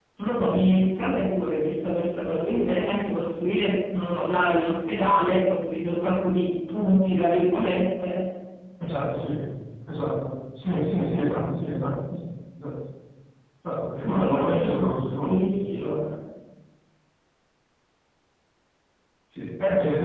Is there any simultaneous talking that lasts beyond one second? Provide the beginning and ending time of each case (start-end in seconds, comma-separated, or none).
14.0-15.4